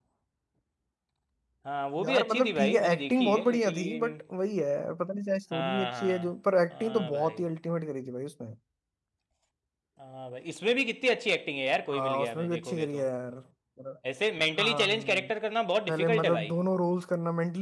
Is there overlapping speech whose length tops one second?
Yes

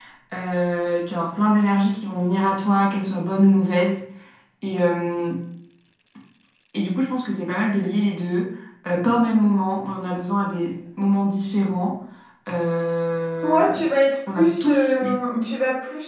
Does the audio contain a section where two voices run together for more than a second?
Yes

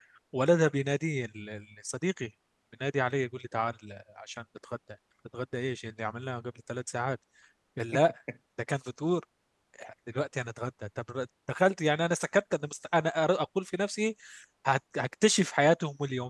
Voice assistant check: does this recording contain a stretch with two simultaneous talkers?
No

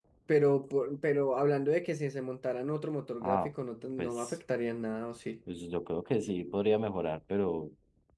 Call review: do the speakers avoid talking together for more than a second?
Yes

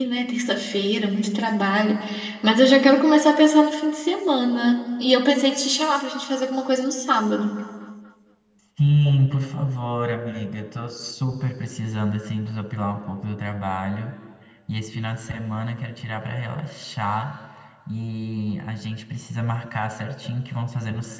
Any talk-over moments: No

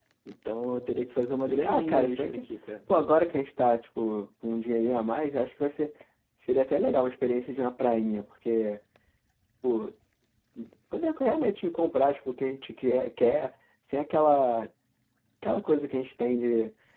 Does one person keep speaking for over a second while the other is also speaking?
Yes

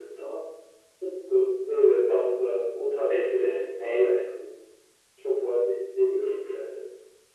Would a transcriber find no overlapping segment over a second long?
Yes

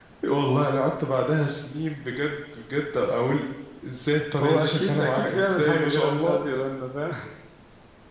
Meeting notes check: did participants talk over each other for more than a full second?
Yes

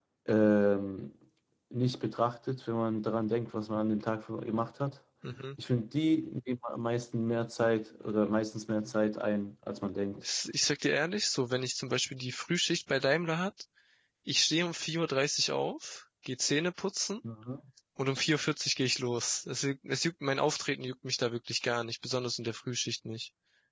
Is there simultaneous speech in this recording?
No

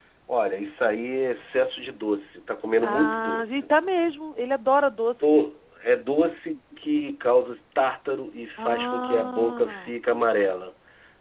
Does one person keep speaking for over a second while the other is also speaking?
Yes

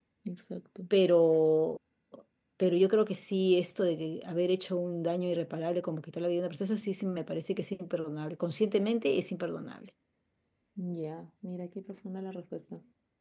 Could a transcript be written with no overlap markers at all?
Yes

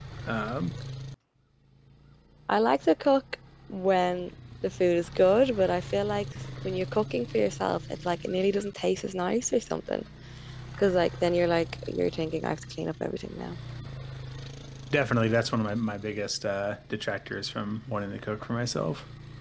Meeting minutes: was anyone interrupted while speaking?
No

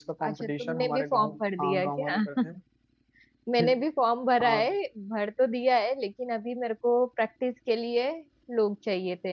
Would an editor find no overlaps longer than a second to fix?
No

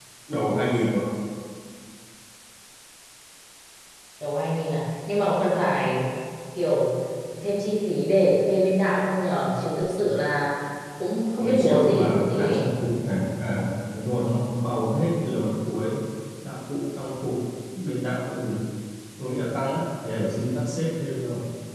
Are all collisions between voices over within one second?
No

